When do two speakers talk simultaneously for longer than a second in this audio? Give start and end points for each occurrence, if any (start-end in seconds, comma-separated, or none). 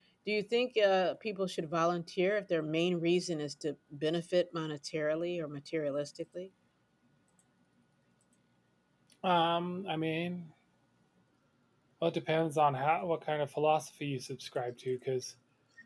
none